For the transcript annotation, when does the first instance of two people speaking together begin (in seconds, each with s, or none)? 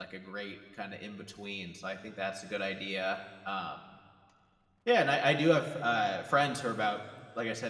none